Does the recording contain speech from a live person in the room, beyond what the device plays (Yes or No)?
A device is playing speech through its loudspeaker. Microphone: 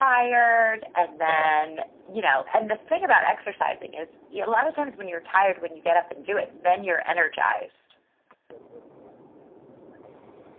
Yes